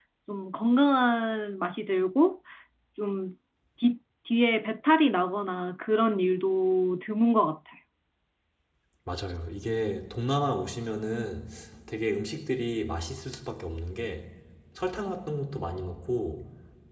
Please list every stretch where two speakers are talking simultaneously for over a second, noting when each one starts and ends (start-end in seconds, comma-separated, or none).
none